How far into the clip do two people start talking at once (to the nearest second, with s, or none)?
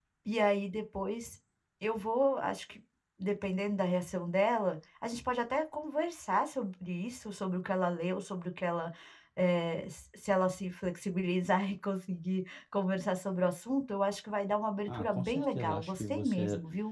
15 s